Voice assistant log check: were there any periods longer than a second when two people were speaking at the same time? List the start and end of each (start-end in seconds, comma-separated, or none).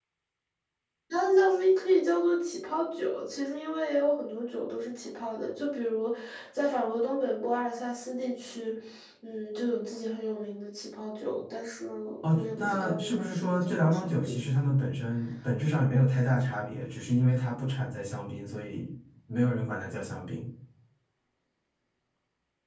12.3-14.3